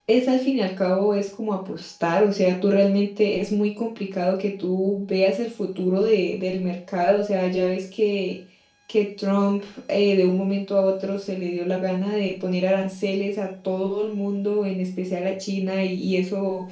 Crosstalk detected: No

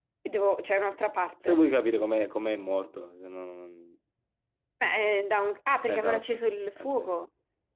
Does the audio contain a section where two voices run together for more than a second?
No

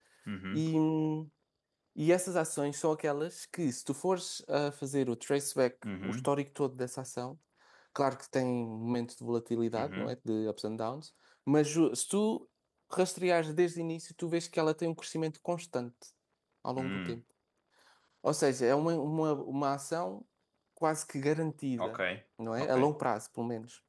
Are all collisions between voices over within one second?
Yes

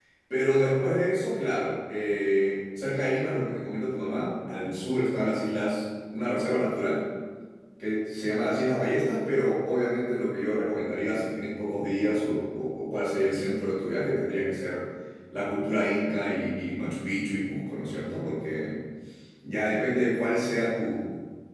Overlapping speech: No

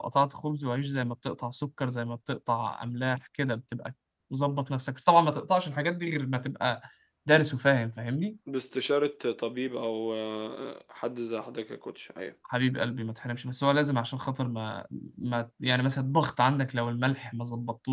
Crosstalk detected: No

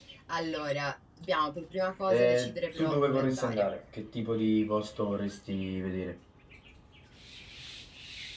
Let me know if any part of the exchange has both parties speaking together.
Yes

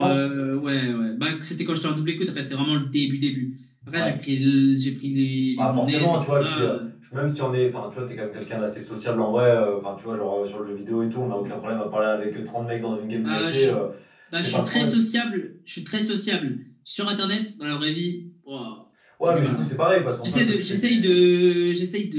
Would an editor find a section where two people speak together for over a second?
Yes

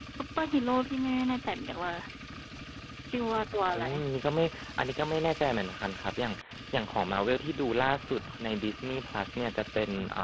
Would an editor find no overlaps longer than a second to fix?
Yes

